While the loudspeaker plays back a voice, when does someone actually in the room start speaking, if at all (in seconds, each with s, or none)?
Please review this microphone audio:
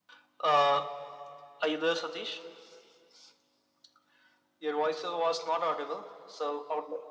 none